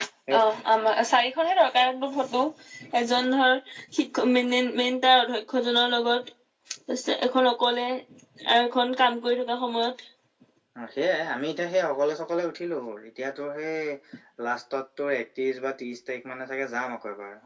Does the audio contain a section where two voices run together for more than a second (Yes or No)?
No